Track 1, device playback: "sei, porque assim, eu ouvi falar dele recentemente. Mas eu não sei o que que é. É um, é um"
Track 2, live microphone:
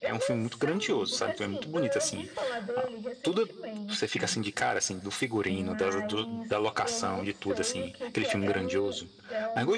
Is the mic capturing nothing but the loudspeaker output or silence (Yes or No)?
No